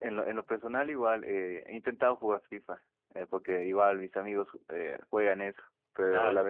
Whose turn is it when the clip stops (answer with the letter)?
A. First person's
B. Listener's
A